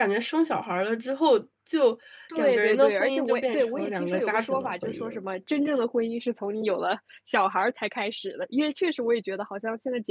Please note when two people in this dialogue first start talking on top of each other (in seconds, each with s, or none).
2.3 s